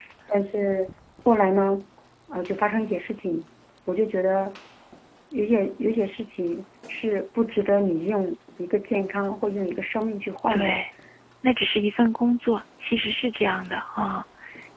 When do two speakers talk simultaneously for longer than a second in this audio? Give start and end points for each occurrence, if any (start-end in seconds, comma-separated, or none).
none